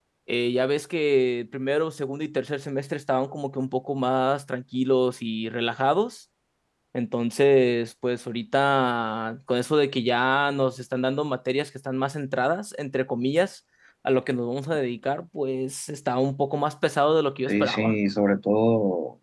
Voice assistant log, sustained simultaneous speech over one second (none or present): none